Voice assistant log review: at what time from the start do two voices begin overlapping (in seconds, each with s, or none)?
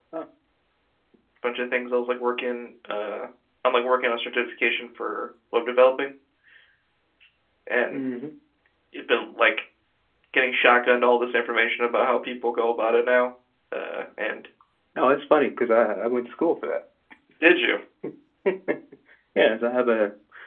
none